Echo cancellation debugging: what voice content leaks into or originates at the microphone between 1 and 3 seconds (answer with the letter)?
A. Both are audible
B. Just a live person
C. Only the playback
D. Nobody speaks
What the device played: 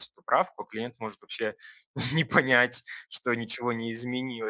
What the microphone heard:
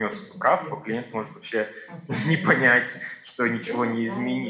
A